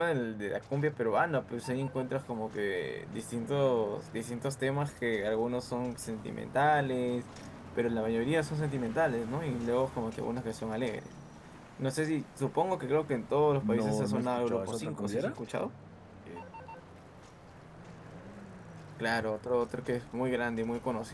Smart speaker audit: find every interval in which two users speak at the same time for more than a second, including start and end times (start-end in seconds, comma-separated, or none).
13.8-15.4